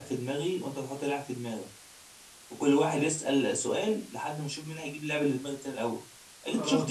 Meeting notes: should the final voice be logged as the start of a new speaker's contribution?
No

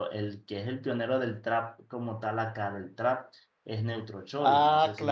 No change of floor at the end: No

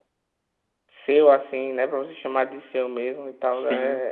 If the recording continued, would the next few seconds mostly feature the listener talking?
Yes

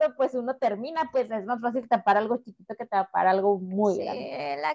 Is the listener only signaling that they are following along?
No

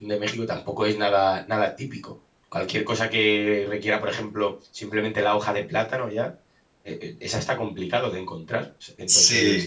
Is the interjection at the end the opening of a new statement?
No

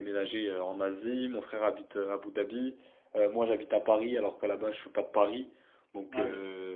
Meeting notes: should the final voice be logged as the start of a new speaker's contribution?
No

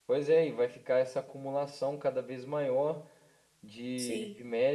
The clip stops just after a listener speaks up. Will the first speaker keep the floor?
Yes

